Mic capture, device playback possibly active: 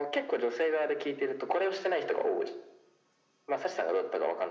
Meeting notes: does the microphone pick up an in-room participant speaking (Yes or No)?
No